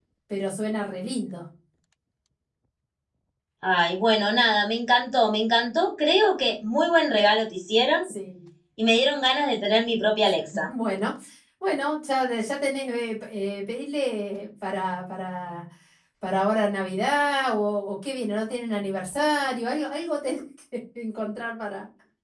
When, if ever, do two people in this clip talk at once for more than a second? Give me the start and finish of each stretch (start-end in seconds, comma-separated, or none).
none